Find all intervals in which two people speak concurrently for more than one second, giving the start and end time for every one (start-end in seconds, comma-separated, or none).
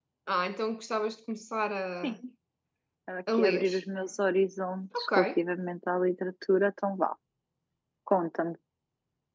none